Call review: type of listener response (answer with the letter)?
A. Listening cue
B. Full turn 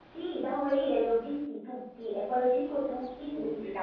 A